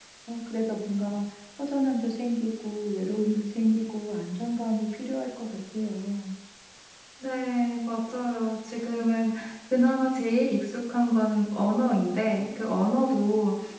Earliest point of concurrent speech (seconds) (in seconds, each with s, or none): none